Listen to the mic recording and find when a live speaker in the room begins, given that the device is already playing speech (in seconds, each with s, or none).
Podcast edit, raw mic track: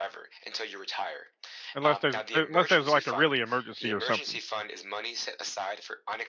1.7 s